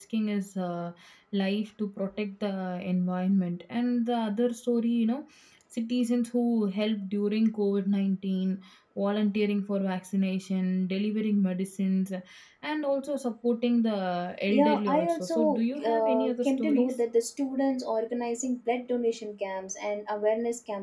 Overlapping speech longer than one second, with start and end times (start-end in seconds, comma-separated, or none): 14.5-17.0